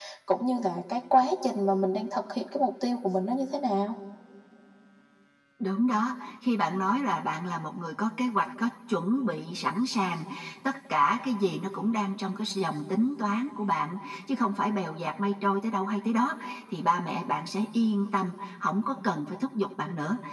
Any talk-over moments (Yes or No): No